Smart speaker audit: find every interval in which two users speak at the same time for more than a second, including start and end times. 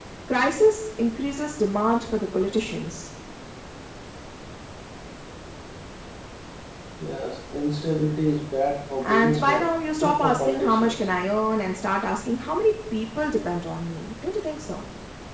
9.0-11.0

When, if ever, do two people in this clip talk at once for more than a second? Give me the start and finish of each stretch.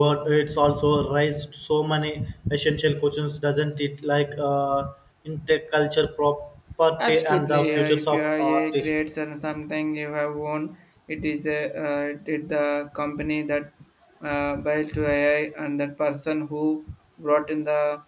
7.0-8.9

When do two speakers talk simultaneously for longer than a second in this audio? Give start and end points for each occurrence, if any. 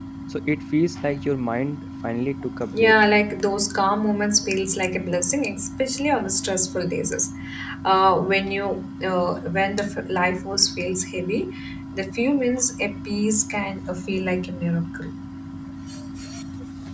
none

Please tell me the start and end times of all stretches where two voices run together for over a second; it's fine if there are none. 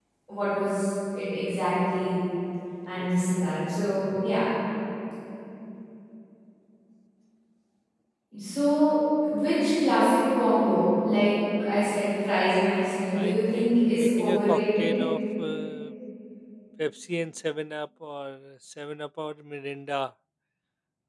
13.2-14.9

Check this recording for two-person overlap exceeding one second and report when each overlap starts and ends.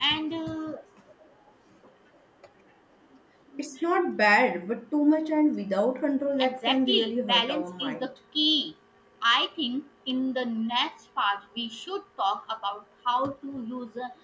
6.4-8.1

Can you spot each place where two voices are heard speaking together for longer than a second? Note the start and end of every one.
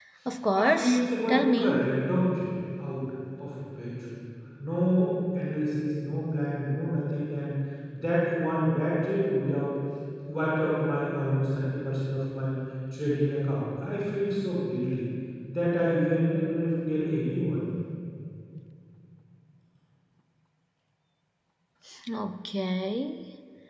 0.6-1.9

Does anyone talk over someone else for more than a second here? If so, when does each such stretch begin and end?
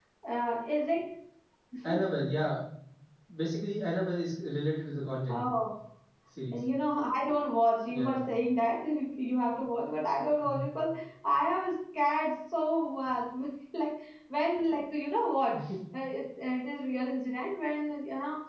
none

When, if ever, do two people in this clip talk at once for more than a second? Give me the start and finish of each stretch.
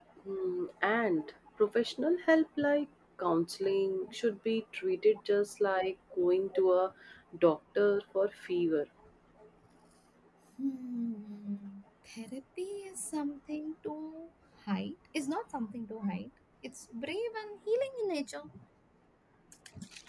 none

